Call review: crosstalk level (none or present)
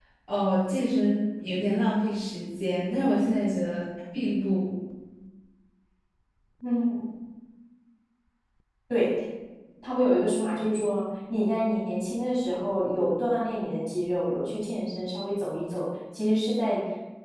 none